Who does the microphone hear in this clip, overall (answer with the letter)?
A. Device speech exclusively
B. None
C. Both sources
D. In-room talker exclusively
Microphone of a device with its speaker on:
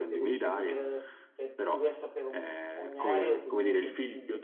C